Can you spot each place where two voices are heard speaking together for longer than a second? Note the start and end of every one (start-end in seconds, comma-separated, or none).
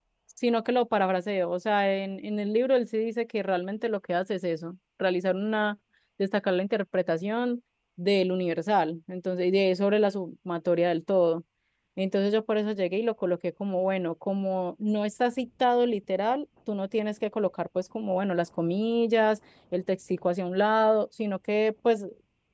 none